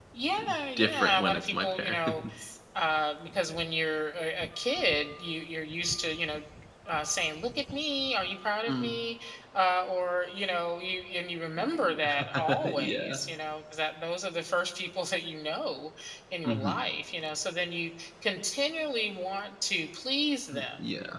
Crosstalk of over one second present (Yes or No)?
Yes